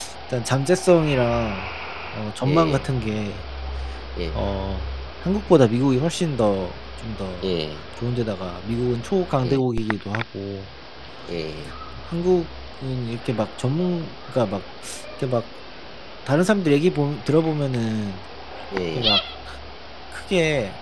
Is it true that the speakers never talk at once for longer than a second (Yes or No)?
Yes